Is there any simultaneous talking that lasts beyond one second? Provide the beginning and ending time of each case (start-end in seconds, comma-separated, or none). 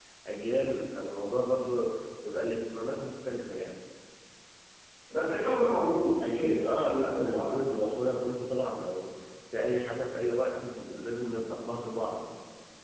6.2-7.6